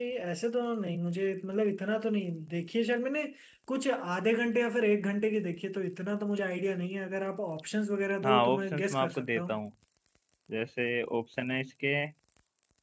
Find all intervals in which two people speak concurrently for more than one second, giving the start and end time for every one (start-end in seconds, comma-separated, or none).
8.2-9.6